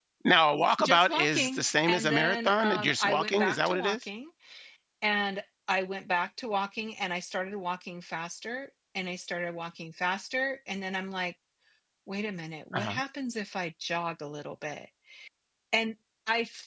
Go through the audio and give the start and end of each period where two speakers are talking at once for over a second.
0.8-4.0

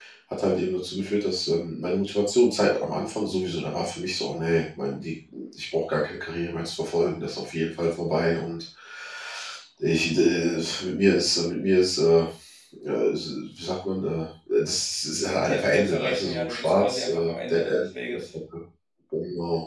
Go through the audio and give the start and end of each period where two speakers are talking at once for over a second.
15.4-18.2

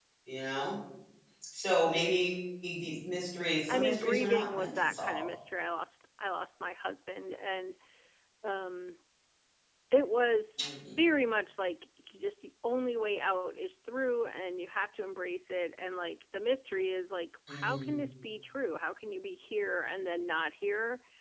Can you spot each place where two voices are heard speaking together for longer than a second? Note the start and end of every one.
3.7-5.2

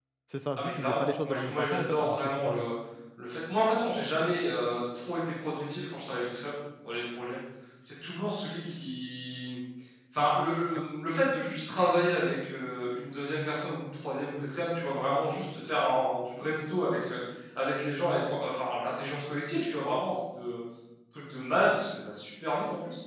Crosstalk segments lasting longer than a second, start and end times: 0.6-2.7

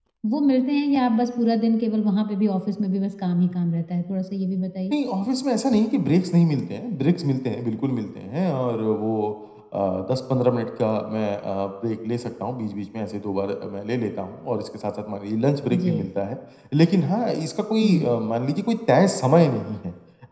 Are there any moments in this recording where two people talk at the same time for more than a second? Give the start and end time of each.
none

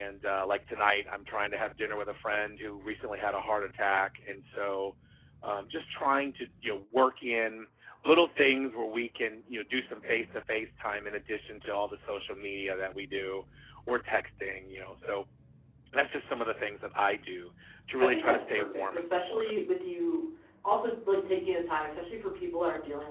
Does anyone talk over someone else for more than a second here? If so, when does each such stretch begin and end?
18.0-19.5

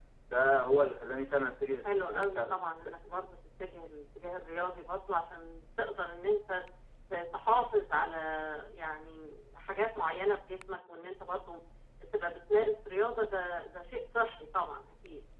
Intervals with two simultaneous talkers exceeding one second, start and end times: 1.9-3.2

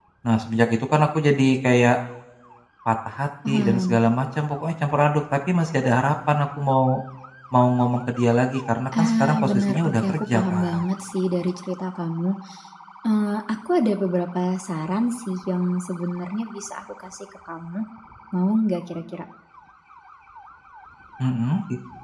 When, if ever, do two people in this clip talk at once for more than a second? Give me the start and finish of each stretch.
9.0-10.8

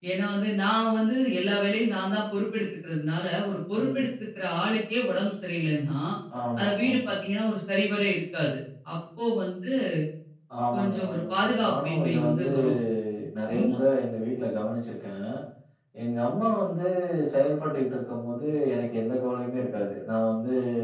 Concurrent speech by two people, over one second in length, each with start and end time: 10.7-12.5

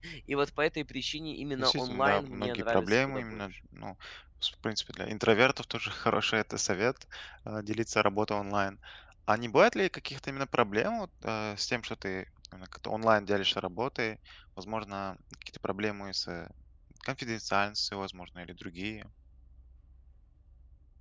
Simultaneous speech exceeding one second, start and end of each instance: 1.6-3.5

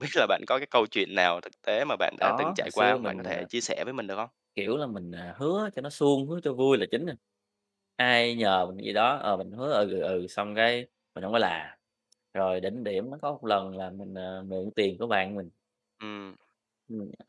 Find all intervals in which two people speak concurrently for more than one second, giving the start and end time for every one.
2.2-3.5

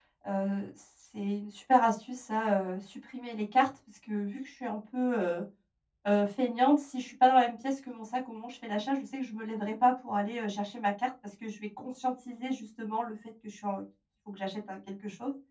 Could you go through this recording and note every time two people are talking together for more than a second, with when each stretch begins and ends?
none

